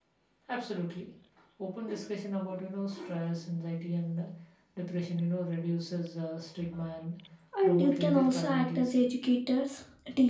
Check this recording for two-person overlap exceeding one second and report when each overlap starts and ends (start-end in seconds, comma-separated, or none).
7.6-9.0